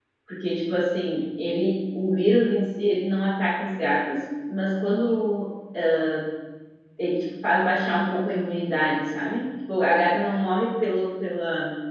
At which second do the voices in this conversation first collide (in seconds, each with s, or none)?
none